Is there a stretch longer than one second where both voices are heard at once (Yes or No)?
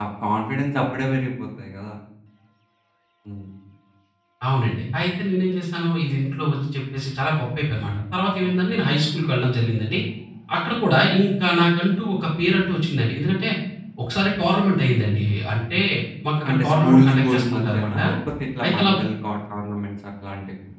Yes